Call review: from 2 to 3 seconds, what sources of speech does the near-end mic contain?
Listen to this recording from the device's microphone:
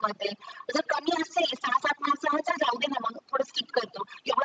echo only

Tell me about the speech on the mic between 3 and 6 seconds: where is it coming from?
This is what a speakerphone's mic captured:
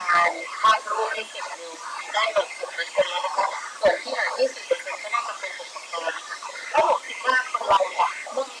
echo only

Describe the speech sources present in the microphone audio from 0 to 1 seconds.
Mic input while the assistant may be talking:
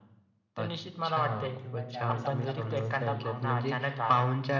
echo only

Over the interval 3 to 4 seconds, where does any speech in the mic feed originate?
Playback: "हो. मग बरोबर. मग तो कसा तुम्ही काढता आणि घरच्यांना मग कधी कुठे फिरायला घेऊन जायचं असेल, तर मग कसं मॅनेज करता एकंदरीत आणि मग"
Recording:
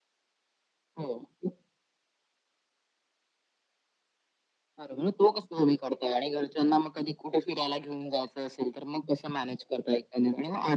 neither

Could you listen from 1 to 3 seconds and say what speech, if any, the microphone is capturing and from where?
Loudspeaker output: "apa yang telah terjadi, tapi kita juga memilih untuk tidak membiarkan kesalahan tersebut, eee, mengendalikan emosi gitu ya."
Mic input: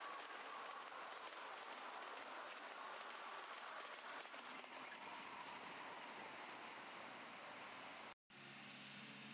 neither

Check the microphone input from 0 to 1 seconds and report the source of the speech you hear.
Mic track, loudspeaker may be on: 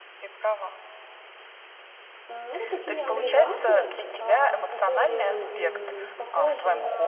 echo only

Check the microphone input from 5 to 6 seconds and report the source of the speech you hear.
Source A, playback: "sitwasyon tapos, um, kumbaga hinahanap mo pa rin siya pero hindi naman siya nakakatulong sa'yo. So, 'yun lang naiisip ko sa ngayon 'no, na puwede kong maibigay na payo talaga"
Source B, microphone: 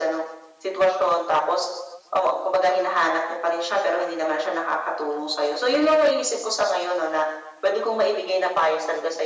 echo only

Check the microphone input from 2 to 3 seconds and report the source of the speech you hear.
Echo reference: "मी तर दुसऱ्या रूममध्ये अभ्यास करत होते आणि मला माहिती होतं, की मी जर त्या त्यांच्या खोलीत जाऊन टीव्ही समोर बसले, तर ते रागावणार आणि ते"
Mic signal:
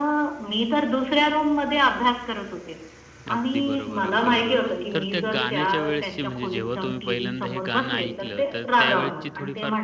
echo only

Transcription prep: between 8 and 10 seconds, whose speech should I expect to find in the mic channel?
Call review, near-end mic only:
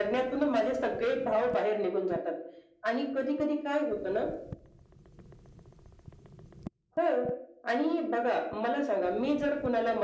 echo only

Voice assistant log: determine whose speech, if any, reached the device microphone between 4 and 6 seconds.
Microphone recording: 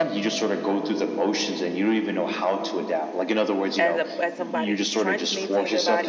both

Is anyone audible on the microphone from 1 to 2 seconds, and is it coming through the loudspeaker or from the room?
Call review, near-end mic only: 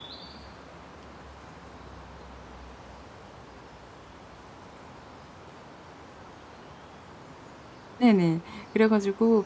neither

